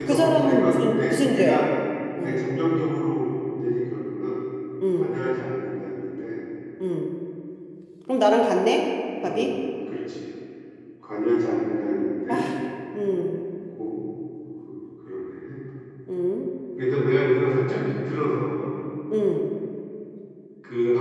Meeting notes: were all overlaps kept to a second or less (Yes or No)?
No